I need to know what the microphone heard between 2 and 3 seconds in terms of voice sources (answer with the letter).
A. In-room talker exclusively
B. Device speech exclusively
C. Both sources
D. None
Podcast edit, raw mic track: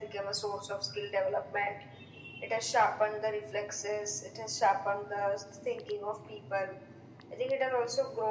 B